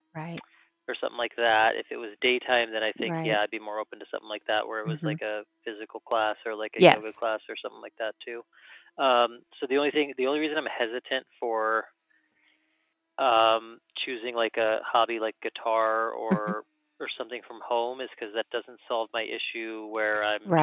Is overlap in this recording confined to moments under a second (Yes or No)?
Yes